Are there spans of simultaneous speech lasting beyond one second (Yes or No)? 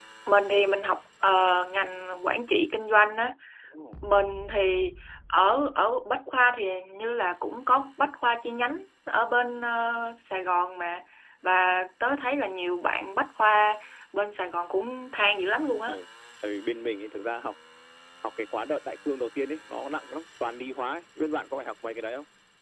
No